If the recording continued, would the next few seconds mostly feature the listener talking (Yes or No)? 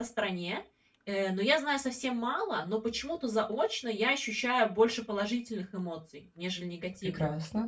No